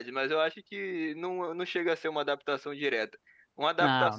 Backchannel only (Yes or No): Yes